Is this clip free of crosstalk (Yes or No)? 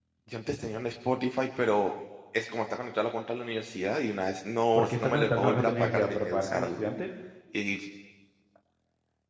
No